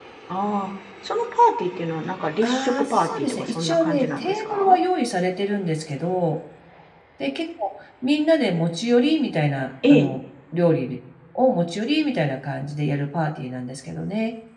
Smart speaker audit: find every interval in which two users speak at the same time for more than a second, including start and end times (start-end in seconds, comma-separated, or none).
2.4-4.8